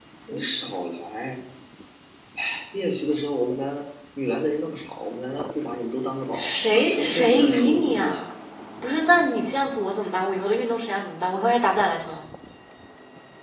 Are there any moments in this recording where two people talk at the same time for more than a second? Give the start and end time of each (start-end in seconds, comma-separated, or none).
6.3-8.2